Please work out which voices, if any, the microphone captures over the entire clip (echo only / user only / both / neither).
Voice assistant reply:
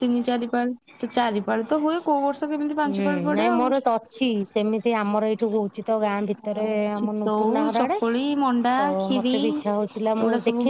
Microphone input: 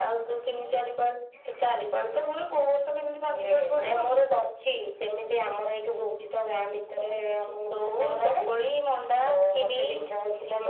echo only